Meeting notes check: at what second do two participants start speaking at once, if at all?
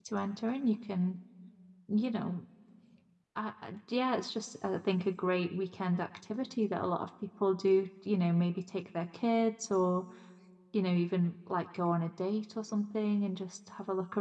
none

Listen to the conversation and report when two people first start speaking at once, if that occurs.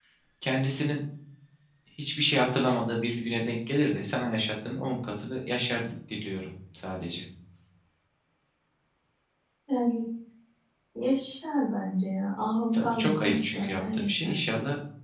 12.7 s

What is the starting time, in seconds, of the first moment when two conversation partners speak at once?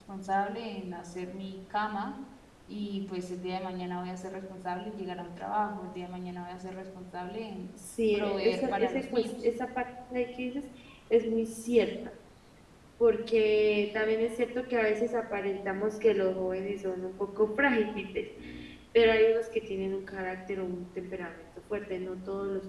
8.1 s

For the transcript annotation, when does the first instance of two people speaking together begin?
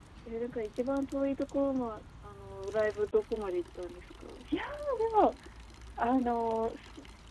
none

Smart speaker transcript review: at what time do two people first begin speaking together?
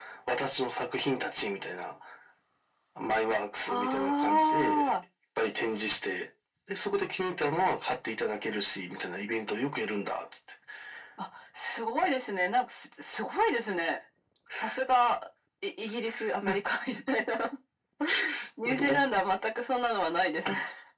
3.7 s

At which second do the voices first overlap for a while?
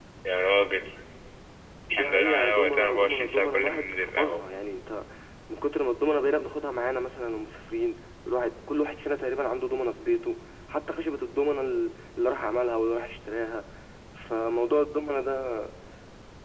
1.9 s

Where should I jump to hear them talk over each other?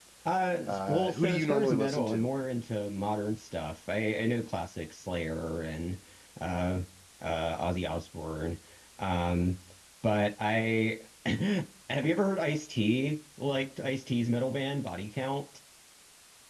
0.6 s

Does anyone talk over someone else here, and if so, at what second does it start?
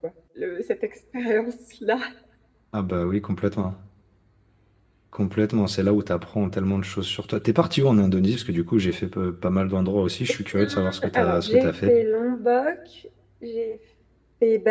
10.5 s

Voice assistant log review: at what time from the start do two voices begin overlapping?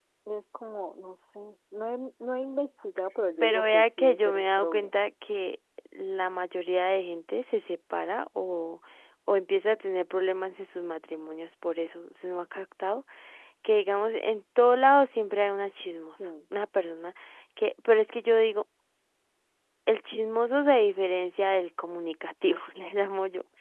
3.4 s

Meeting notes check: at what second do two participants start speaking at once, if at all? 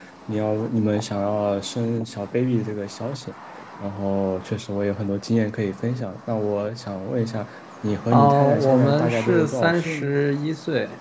8.1 s

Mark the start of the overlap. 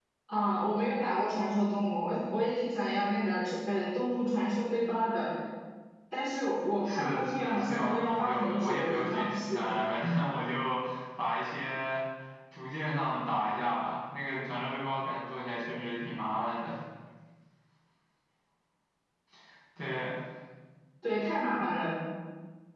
6.8 s

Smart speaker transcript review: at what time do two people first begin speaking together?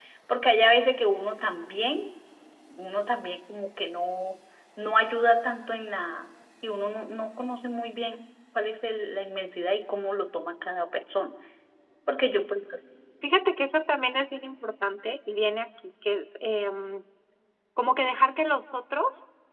none

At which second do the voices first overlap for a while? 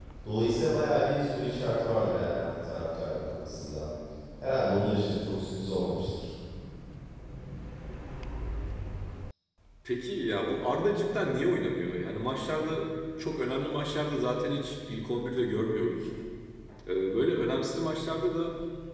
none

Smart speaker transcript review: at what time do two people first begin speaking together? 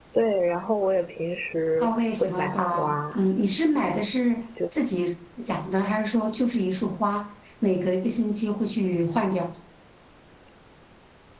1.8 s

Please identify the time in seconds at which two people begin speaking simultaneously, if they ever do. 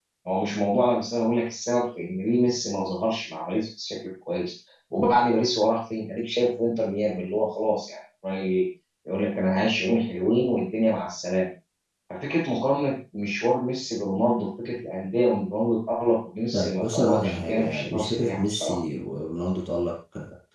16.5 s

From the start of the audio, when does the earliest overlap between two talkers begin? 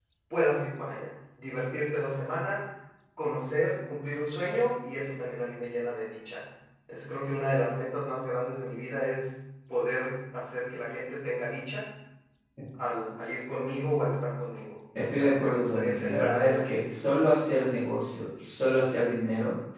15.0 s

